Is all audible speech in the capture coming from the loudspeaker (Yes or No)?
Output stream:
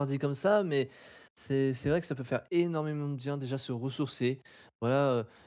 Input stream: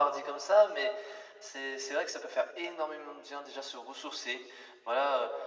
Yes